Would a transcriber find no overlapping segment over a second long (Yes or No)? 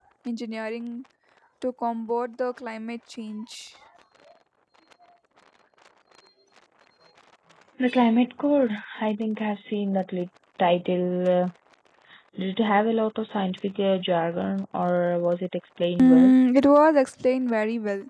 Yes